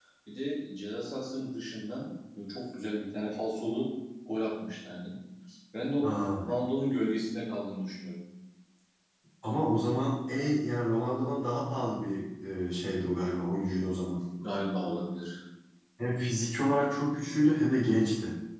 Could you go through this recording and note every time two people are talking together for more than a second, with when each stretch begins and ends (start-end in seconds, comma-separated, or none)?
none